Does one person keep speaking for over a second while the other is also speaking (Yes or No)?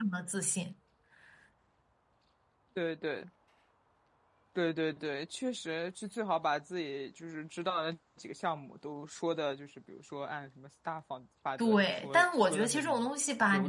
Yes